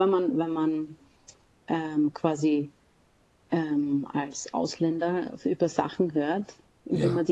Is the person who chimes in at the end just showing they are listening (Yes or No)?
Yes